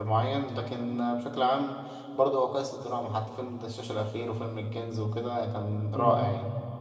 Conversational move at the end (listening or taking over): taking over